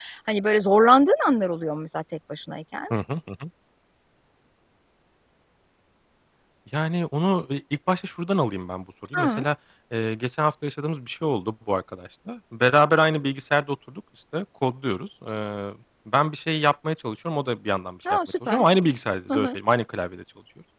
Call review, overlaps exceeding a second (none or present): none